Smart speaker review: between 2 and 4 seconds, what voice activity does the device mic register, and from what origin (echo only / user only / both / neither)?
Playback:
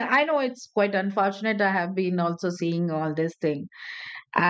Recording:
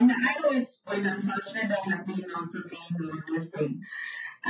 echo only